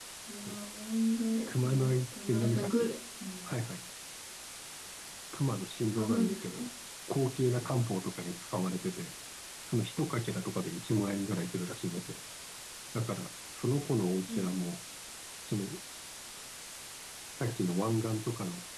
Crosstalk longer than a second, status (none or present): present